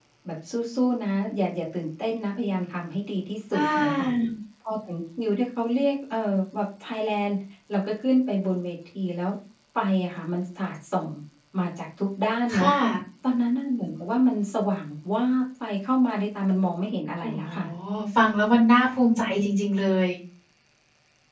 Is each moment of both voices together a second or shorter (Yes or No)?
Yes